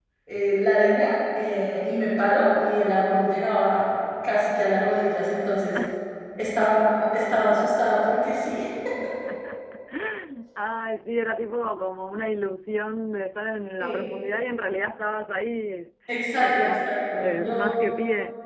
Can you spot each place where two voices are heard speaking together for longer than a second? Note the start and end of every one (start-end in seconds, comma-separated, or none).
16.4-17.7